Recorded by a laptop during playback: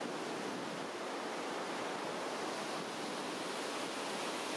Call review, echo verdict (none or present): none